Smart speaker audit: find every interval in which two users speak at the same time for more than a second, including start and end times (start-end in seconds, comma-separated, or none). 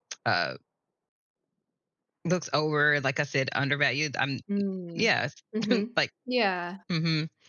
none